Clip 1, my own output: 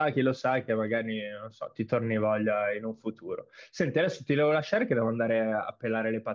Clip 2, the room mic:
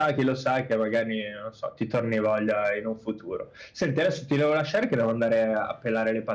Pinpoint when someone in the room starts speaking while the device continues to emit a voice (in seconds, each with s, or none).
none